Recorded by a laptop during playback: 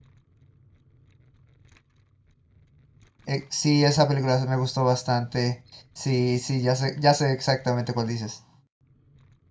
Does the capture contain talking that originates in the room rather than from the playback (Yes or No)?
Yes